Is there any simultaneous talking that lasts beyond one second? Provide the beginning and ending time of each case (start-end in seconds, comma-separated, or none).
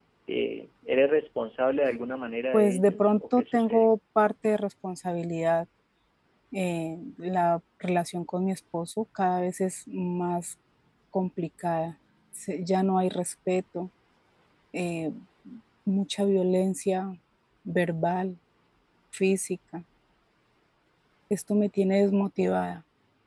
2.5-3.9